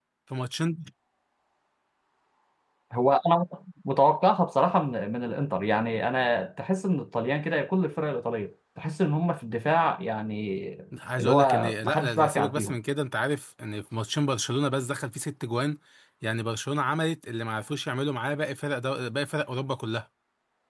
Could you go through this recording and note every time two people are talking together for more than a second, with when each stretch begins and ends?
11.2-12.8

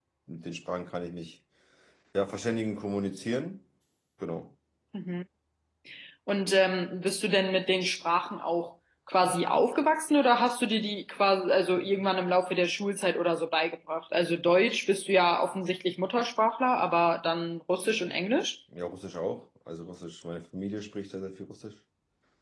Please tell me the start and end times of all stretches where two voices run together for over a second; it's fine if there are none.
none

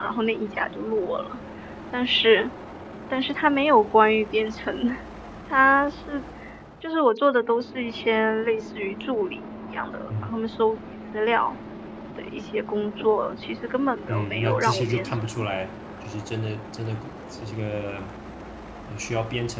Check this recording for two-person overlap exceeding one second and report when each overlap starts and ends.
14.1-15.4

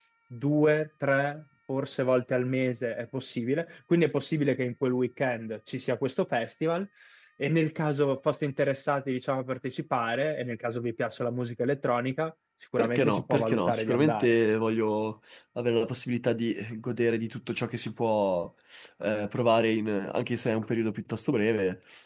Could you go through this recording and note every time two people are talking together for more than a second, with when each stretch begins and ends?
12.8-14.3

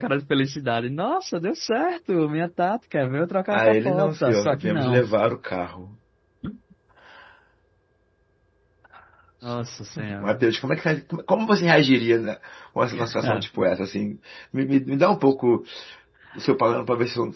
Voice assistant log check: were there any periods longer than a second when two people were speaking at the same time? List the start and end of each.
3.5-5.0

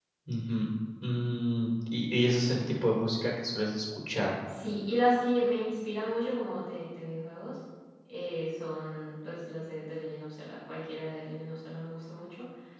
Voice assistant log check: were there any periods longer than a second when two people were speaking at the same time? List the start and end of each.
none

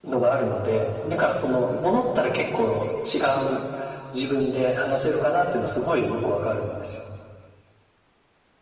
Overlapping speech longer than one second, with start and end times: none

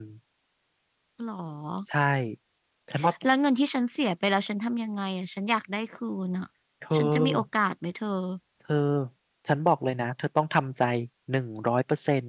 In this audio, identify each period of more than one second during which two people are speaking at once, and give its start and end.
none

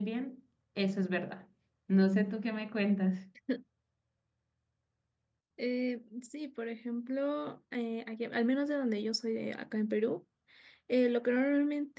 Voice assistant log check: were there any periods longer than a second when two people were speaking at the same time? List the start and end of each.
none

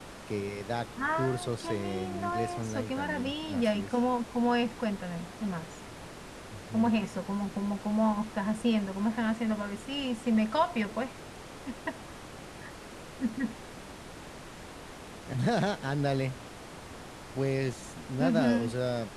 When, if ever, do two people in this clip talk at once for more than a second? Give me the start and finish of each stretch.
1.1-4.0

